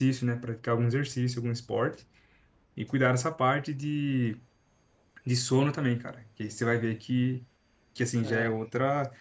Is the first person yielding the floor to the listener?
No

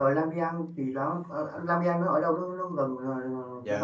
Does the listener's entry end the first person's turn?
Yes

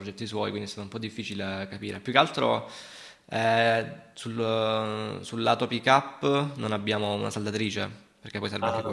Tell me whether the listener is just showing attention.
No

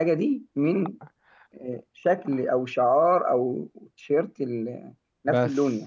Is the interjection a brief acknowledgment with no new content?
No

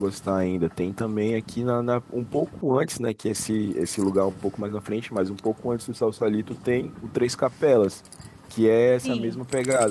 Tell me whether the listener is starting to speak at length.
No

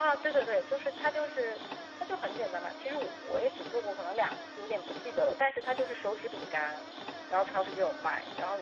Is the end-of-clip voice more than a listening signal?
No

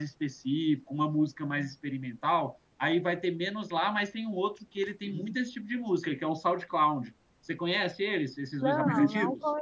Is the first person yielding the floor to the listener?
Yes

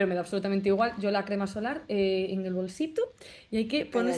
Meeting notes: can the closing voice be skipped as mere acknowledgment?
Yes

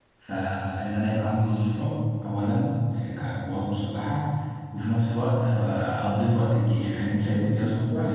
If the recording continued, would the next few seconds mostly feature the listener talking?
Yes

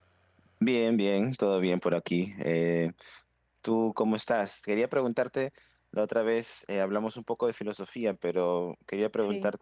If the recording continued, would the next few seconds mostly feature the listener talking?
No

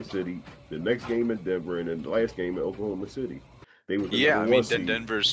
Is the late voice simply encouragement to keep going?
No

